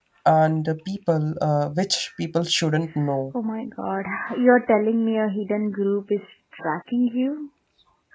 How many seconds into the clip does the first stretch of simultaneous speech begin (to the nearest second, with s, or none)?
none